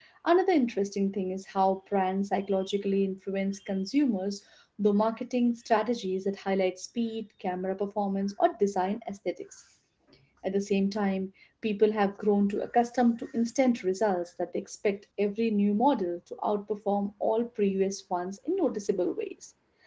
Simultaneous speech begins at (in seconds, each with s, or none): none